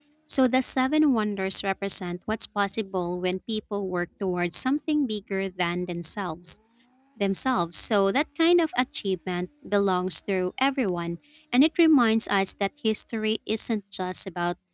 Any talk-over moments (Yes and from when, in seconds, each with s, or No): No